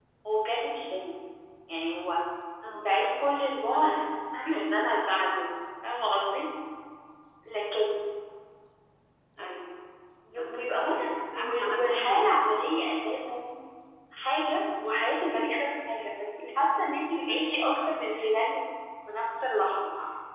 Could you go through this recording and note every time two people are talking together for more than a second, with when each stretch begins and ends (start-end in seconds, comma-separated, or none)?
10.4-12.4